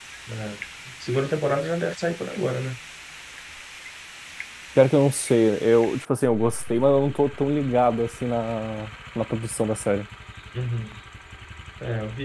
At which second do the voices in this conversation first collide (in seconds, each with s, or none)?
none